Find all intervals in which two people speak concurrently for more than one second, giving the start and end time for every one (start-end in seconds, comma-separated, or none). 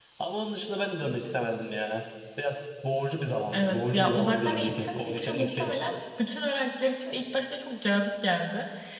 3.5-5.7